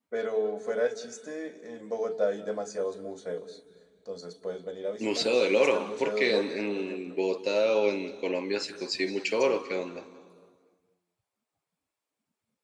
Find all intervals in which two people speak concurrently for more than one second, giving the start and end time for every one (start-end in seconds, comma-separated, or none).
5.0-7.2